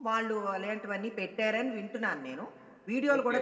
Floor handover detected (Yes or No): Yes